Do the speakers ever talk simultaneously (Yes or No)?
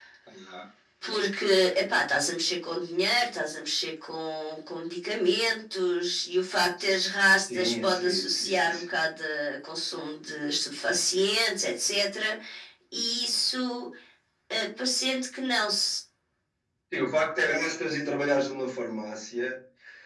Yes